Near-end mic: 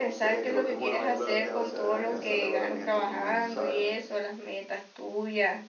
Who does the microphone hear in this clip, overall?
both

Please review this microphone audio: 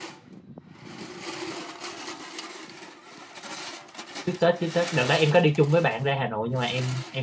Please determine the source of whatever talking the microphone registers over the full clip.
user only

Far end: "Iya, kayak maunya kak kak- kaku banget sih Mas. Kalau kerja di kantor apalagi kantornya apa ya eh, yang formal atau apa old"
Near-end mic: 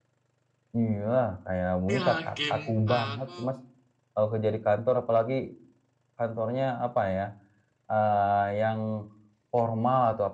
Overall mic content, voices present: both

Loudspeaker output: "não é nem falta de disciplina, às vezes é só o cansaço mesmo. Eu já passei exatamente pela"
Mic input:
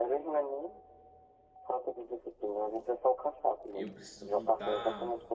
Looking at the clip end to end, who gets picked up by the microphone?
both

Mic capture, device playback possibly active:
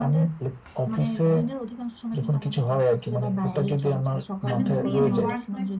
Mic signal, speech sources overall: both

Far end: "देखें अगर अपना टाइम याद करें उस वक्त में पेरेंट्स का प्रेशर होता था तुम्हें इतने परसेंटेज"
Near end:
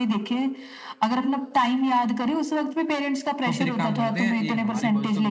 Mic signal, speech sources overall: both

